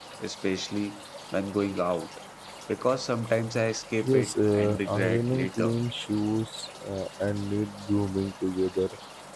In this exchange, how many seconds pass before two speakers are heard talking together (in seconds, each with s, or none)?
4.0 s